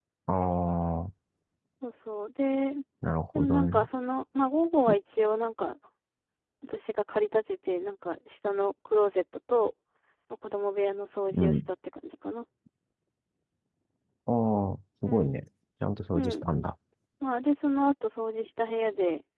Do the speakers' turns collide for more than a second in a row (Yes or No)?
No